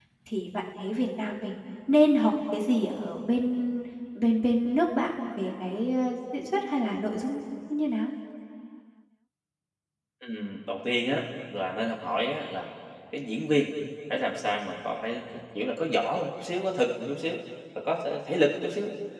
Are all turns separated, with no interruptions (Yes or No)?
Yes